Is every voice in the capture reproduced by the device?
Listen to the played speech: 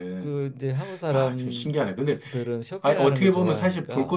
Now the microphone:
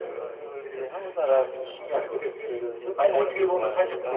No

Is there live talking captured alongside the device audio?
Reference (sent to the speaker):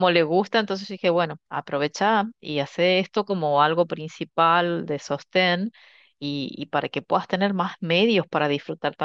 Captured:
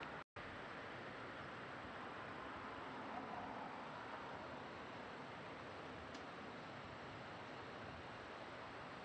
No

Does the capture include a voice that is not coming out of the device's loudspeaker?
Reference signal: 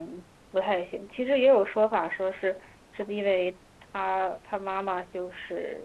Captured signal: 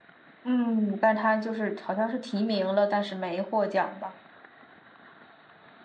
Yes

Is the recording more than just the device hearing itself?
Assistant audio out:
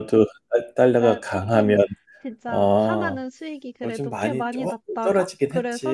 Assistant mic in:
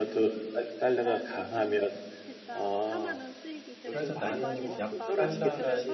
Yes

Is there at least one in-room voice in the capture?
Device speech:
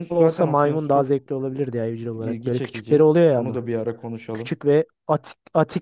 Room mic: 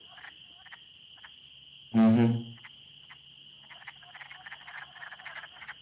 Yes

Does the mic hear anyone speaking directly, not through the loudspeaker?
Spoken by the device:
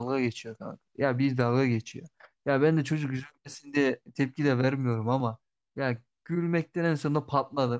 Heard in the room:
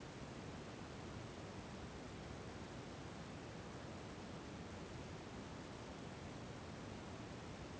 No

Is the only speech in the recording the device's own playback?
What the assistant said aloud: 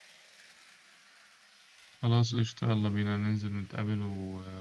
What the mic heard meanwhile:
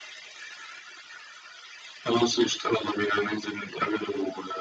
Yes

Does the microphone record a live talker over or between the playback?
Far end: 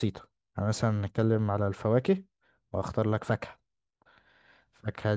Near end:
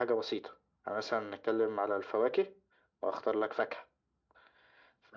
No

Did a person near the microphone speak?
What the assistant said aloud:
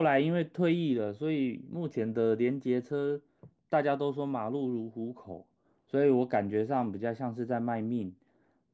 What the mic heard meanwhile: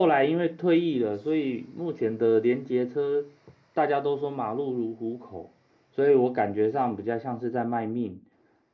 No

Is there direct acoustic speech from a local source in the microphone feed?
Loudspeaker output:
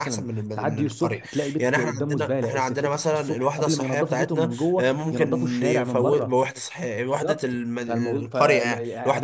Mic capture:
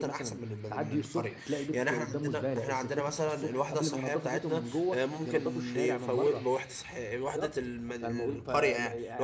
No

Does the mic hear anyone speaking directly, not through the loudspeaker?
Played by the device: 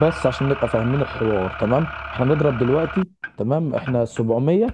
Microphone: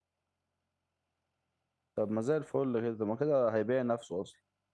Yes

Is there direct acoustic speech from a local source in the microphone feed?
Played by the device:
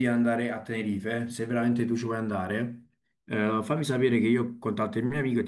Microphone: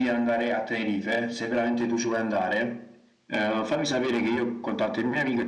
No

